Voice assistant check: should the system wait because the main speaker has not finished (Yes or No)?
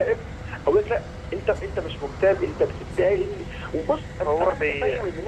Yes